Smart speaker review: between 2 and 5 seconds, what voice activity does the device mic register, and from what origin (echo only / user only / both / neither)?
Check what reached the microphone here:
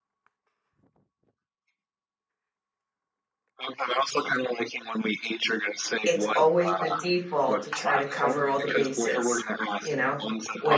echo only